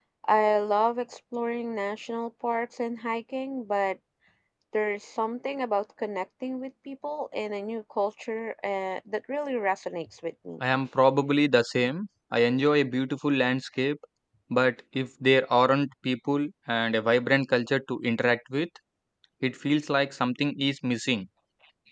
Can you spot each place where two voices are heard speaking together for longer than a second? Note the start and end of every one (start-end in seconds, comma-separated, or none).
none